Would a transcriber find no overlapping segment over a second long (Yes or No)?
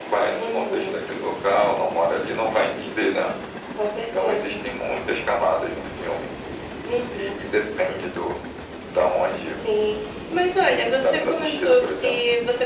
No